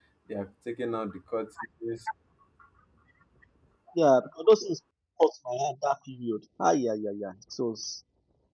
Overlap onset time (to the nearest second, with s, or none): none